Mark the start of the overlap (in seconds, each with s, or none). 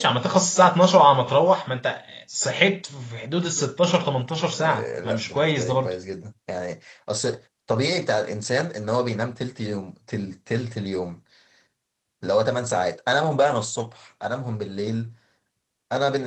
4.6 s